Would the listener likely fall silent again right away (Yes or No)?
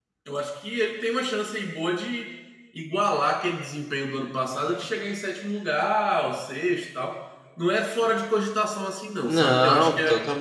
No